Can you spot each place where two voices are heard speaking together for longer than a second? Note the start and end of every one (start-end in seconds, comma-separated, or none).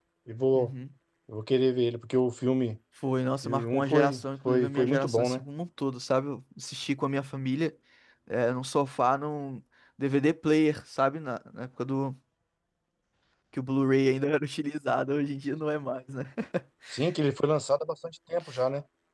3.4-5.4